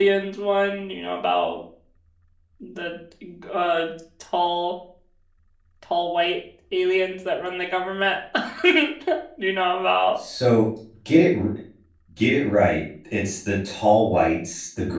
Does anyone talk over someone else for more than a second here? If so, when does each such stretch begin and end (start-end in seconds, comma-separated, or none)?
none